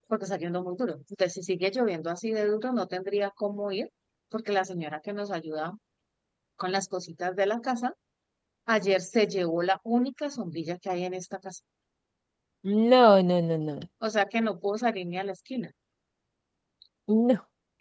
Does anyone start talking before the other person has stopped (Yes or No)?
No